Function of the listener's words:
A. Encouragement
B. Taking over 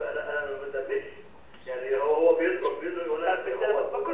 B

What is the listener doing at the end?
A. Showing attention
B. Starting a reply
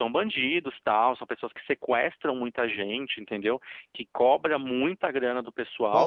B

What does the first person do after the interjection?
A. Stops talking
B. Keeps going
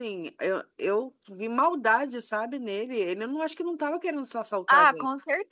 A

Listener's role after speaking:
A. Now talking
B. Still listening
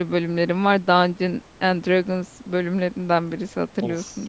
A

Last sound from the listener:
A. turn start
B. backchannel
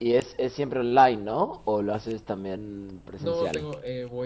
A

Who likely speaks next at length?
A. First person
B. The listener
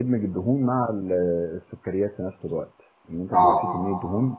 A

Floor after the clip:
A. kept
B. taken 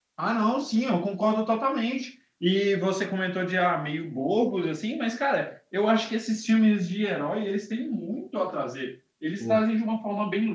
A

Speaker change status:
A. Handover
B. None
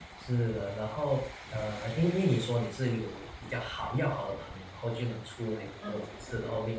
B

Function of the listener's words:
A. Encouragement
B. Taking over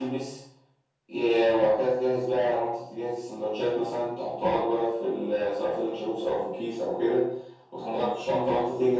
A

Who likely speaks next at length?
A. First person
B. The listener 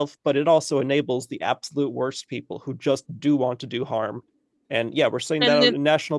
A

